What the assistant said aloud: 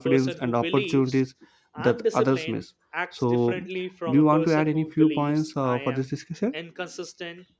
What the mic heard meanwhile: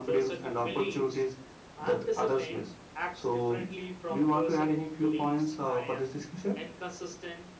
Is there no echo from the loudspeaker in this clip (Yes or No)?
No